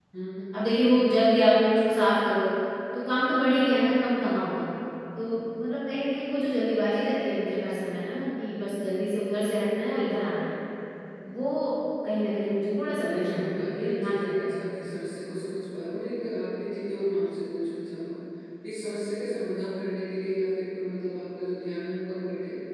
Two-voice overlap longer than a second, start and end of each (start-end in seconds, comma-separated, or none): 12.8-14.9